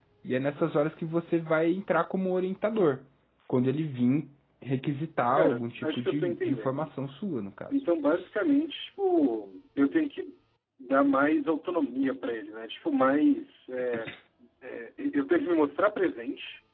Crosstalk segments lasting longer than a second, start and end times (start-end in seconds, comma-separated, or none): 5.4-6.9